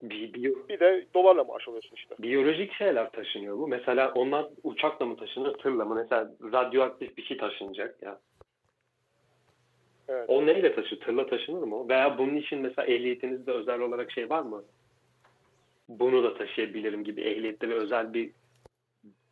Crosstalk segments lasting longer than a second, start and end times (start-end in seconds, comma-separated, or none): none